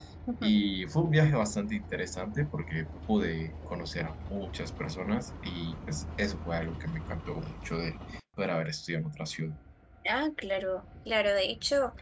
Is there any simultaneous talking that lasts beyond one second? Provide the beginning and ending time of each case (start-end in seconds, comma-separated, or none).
none